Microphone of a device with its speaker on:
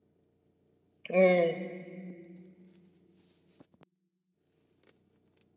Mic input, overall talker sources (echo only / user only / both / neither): user only